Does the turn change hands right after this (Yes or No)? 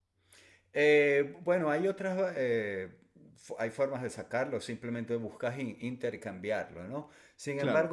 No